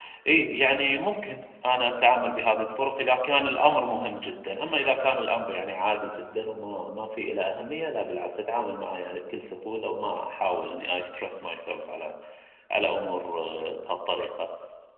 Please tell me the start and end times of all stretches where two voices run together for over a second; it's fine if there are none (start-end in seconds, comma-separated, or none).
none